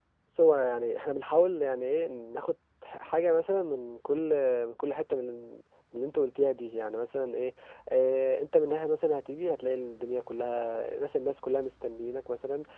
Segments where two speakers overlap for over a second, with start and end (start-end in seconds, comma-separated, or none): none